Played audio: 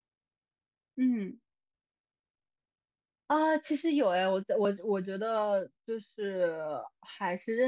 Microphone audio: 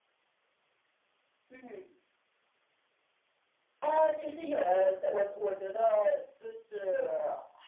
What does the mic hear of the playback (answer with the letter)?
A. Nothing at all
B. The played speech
B